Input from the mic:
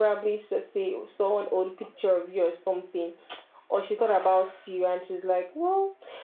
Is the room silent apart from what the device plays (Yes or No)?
Yes